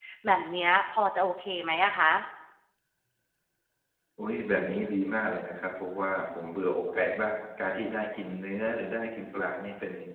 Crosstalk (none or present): none